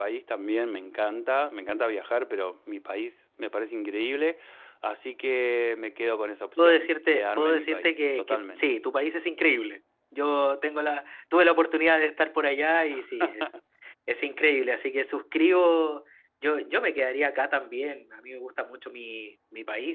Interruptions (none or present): present